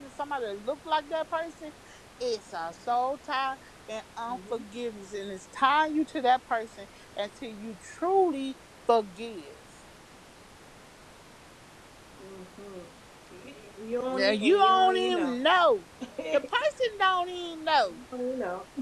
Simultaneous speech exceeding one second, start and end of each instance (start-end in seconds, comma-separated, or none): 14.1-15.3